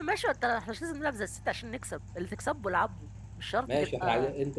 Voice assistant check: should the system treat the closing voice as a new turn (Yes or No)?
Yes